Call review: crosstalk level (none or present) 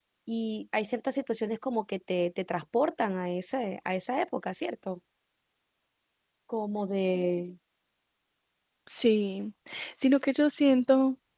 none